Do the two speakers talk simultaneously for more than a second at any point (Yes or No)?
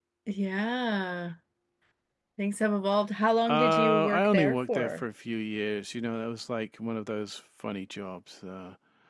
Yes